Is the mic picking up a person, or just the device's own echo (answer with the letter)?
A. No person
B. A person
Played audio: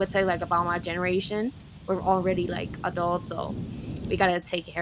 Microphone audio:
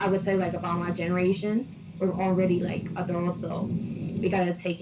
A